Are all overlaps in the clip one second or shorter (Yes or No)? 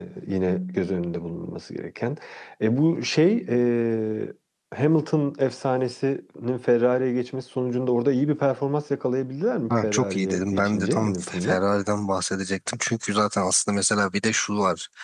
No